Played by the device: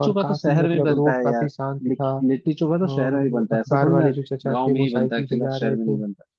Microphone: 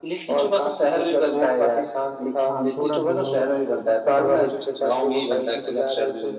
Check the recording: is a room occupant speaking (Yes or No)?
Yes